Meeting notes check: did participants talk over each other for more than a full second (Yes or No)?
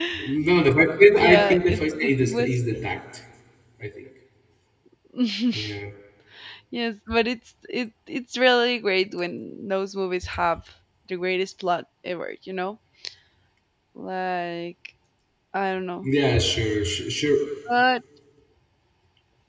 Yes